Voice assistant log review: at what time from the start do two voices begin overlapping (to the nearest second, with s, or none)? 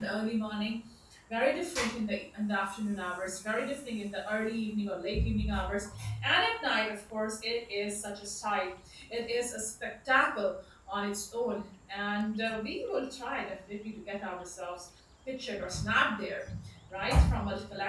none